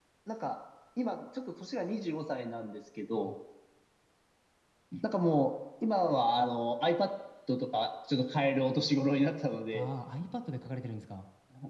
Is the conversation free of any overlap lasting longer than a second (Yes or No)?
Yes